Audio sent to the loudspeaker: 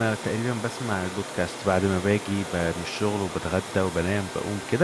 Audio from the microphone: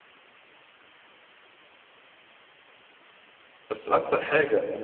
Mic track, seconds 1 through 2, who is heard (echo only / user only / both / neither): neither